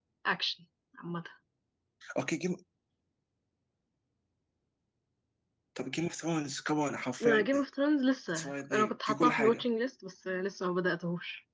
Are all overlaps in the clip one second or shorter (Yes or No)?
No